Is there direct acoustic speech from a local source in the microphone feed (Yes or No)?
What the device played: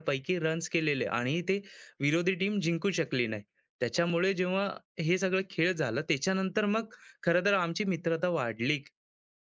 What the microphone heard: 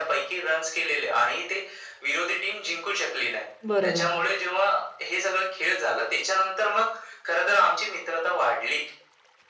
Yes